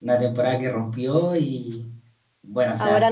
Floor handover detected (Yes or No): No